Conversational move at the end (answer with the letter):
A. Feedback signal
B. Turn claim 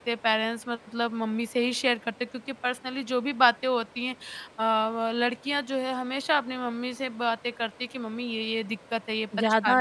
B